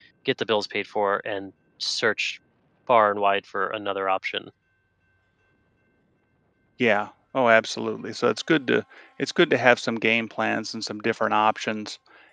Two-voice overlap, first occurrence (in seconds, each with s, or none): none